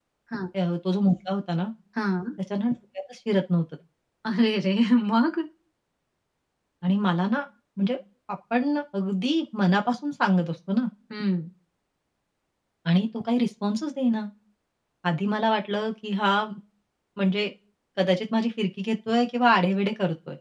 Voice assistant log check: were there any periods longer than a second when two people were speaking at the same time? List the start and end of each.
none

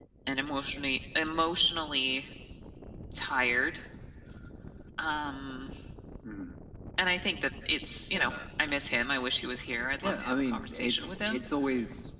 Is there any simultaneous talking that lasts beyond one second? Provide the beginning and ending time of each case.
10.0-11.4

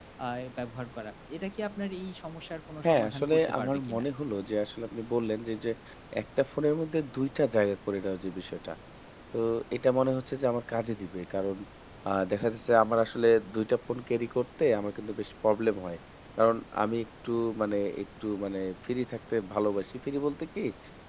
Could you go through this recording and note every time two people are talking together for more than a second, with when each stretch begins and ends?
2.8-4.0

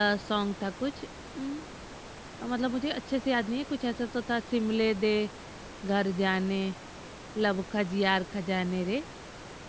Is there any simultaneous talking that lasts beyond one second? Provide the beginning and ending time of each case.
none

